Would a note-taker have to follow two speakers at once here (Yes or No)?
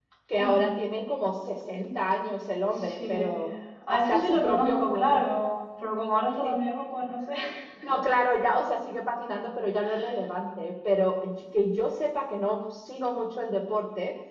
Yes